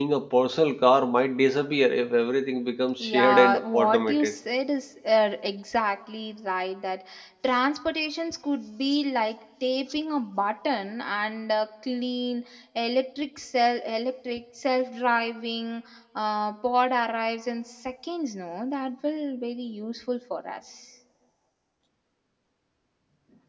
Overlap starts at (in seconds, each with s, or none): 3.0 s